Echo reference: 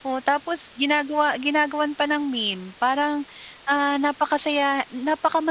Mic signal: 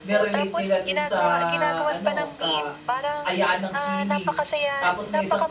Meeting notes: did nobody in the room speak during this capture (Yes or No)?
No